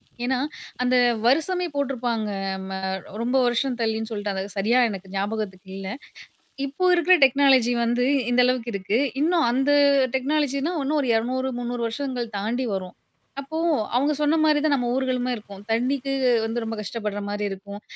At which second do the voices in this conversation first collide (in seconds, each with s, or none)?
none